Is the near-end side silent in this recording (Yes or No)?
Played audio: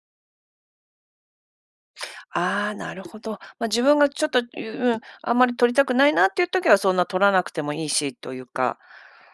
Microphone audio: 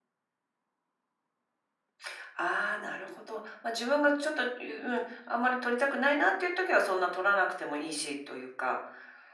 Yes